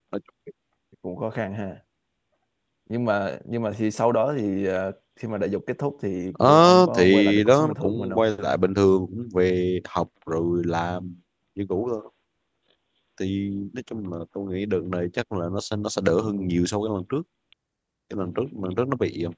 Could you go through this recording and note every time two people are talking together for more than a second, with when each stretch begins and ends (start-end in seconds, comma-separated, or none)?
6.3-8.2